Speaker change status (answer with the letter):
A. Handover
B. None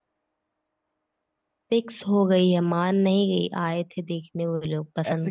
A